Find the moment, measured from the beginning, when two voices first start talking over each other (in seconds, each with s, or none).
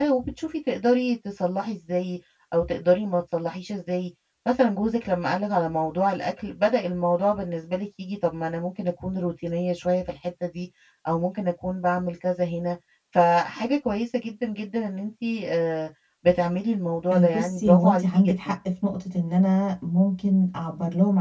17.1 s